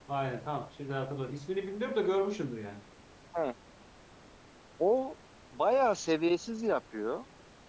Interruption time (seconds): none

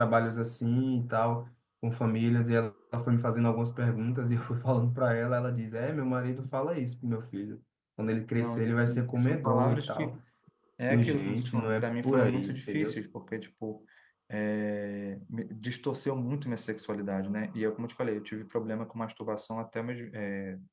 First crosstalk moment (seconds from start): 8.4 s

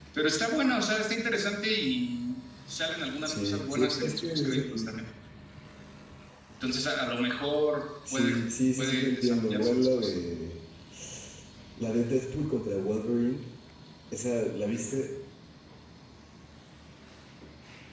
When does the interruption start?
3.2 s

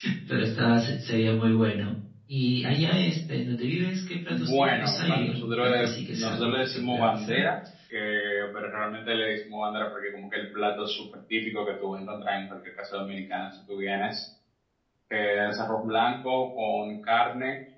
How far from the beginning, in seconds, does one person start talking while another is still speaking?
4.3 s

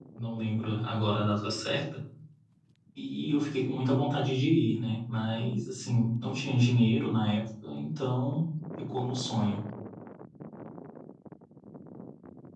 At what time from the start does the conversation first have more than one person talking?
none

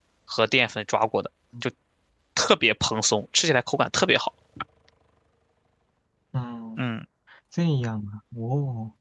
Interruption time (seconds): none

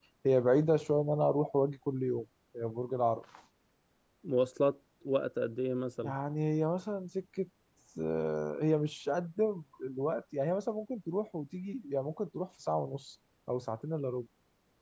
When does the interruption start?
none

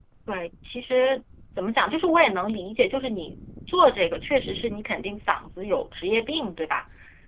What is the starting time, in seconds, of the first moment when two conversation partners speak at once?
none

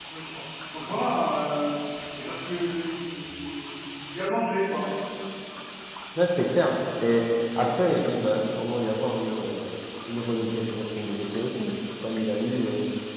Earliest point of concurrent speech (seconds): none

